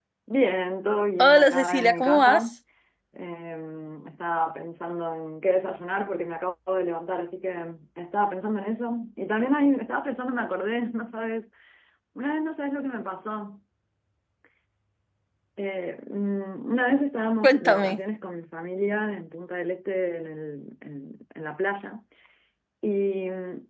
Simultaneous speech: Yes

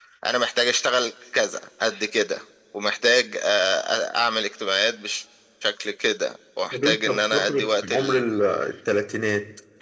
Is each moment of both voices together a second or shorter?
No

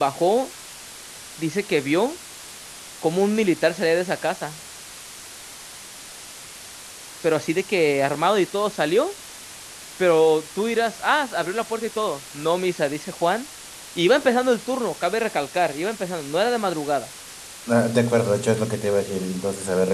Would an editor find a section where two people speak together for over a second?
No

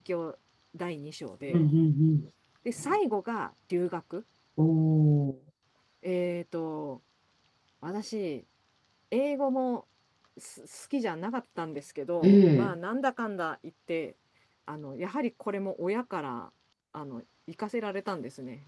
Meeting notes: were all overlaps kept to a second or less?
Yes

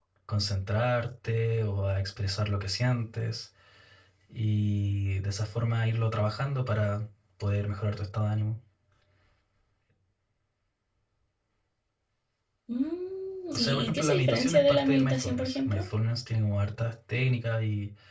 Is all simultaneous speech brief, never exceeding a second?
No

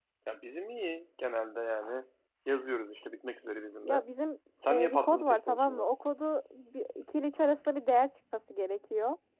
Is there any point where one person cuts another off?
Yes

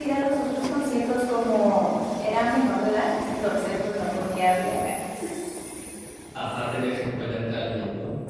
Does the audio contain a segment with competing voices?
No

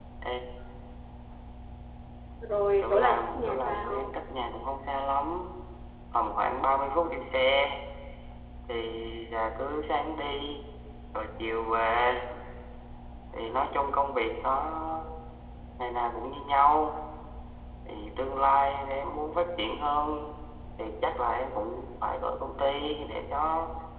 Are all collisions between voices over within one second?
No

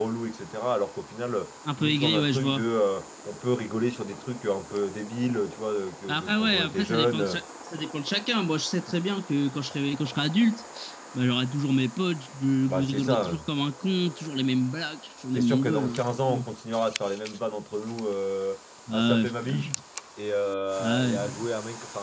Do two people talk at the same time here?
Yes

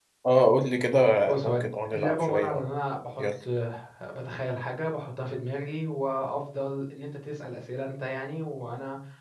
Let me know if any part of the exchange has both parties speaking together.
Yes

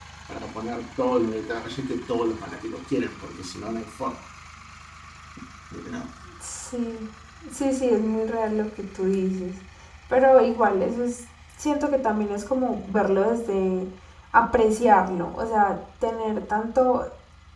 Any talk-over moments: No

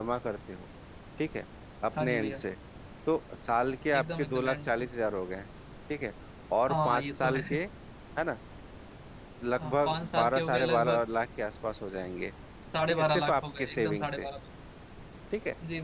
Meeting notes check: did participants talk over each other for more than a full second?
Yes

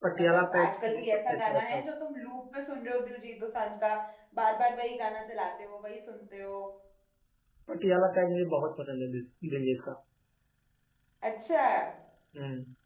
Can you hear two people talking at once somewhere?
Yes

